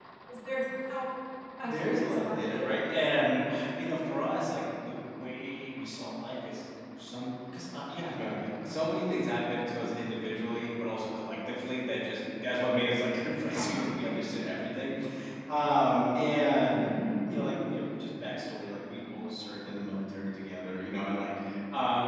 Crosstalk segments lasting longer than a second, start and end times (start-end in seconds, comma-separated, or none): 1.6-2.8